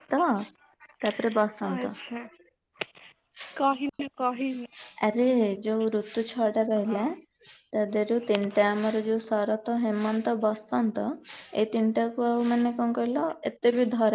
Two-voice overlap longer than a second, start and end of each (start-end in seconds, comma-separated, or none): none